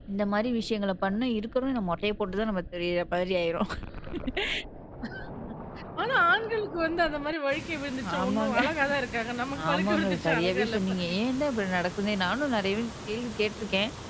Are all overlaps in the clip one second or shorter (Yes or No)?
No